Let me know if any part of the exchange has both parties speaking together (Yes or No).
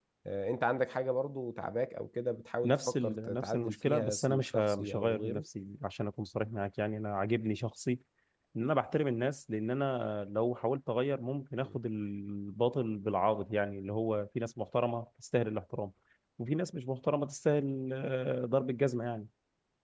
Yes